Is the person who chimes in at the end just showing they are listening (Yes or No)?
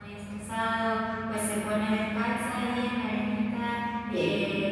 Yes